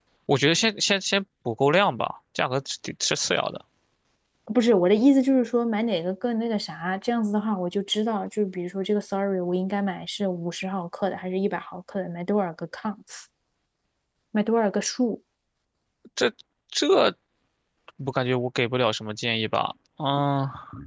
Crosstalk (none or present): none